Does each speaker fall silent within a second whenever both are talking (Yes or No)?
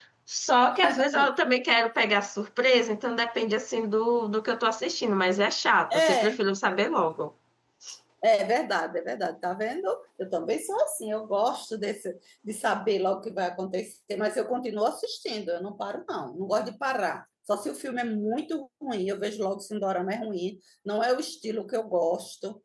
Yes